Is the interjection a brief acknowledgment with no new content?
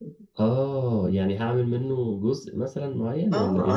No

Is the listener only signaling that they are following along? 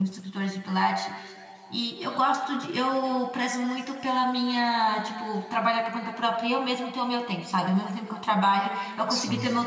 Yes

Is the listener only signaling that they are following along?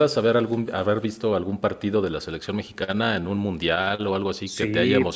No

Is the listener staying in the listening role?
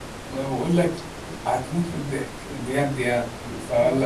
Yes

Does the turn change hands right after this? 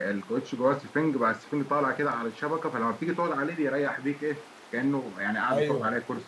Yes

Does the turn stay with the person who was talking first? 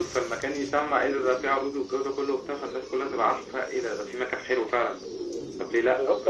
No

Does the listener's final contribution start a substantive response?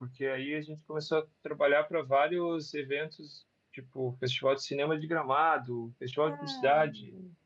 No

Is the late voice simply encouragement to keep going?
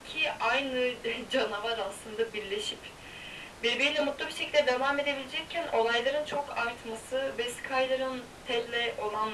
Yes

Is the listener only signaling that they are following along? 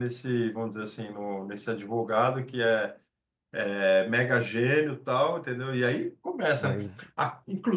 Yes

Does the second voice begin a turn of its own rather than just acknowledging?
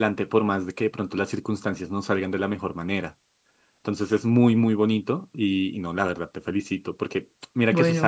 No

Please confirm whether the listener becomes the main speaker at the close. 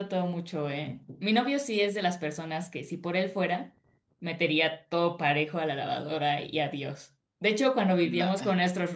No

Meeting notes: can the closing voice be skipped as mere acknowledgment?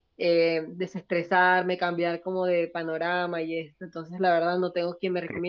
Yes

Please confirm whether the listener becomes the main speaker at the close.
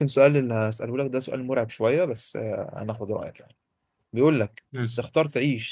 No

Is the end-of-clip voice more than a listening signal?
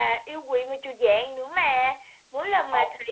No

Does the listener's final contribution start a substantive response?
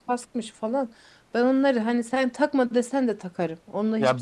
Yes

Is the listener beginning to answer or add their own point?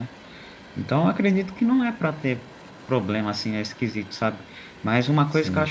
No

